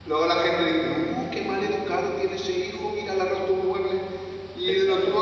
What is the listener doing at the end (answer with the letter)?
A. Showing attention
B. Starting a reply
A